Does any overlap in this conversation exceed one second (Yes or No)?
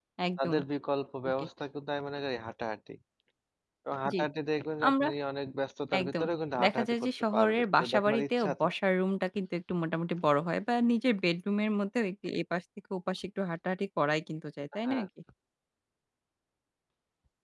Yes